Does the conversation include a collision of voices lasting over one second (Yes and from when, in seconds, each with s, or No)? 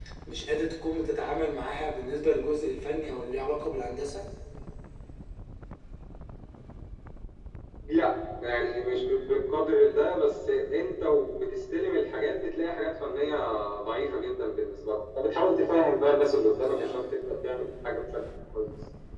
No